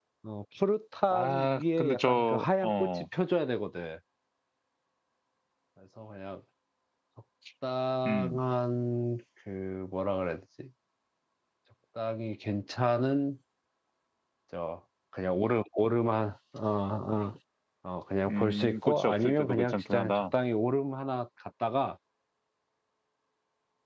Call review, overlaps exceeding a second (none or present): present